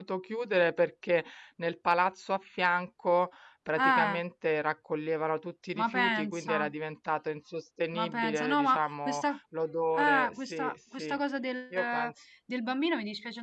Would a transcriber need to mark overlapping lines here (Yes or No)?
Yes